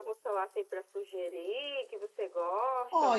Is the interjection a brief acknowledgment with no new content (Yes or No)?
No